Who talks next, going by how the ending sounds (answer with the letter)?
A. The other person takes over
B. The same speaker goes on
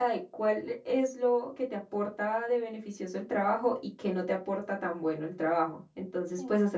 B